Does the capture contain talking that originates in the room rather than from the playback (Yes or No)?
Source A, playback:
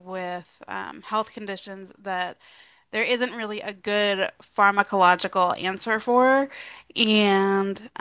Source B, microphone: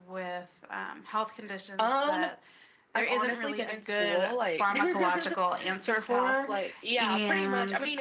Yes